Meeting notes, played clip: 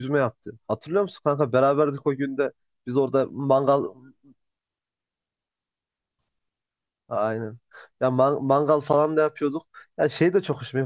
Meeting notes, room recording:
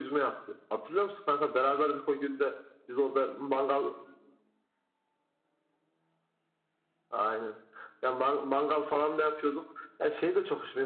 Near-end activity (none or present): none